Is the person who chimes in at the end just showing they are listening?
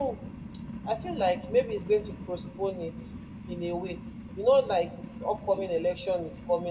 Yes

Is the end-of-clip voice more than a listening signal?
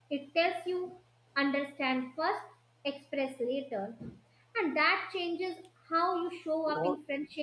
No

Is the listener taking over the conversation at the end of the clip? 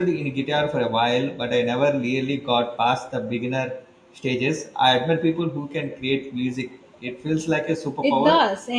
Yes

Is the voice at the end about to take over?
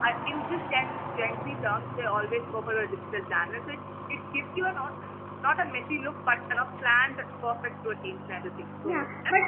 Yes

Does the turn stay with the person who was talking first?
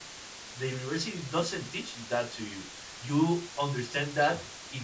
Yes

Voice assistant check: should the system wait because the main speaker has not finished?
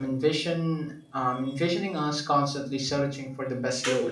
No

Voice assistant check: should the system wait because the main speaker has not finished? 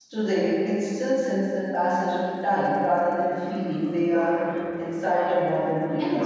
No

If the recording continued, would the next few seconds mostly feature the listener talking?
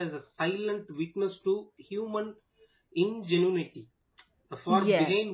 No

